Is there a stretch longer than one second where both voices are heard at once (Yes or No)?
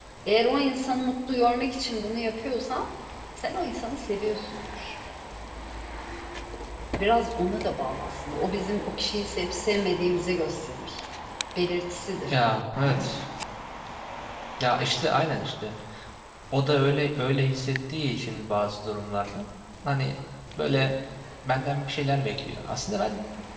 No